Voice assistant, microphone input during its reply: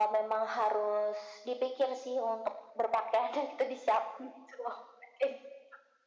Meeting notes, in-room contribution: none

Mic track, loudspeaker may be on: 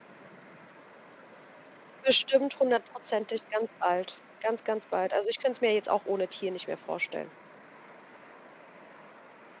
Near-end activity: present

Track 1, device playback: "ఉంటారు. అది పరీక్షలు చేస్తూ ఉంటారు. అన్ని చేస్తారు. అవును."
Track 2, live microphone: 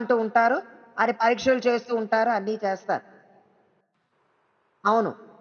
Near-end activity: none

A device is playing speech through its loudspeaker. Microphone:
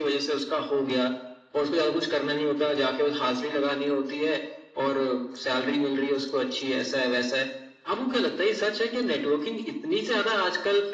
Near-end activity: none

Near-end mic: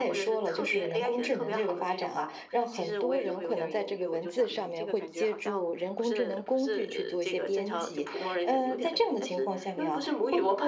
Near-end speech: none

